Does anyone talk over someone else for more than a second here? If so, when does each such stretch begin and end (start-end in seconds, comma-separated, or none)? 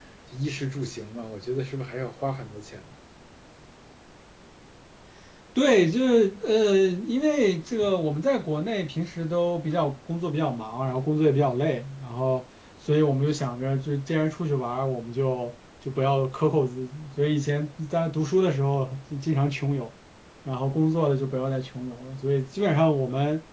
none